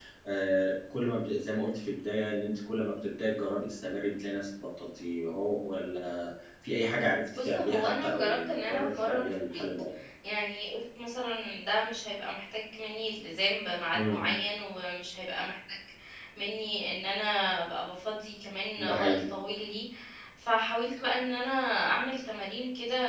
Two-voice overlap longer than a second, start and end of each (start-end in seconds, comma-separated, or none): 7.3-9.6